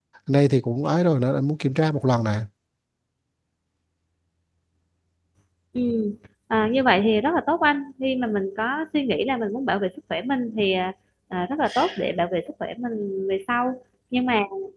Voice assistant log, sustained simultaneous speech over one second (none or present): none